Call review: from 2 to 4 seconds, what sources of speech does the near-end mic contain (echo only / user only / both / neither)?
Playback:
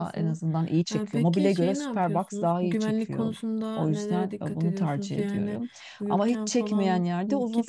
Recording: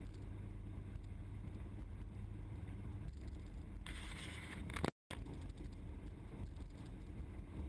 neither